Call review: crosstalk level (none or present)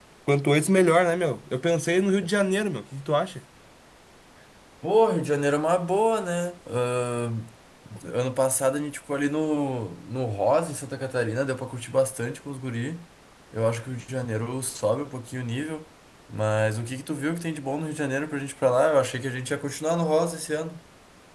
none